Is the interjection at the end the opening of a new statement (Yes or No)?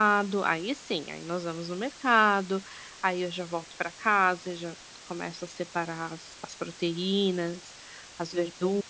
Yes